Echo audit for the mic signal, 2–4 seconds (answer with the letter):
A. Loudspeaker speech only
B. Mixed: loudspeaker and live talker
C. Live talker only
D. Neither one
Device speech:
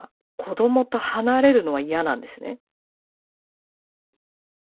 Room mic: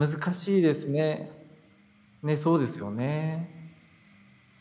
C